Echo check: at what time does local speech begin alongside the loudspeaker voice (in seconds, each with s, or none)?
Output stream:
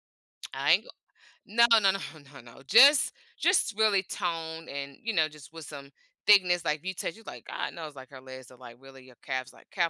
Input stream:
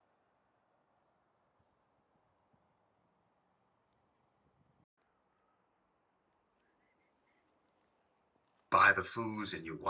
8.7 s